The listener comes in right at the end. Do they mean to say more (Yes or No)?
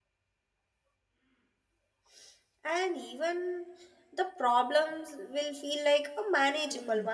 Yes